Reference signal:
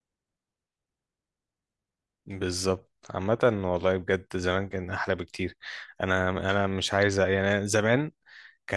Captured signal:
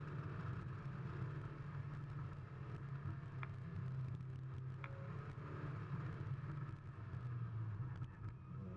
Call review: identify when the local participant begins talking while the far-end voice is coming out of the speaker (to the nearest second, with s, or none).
none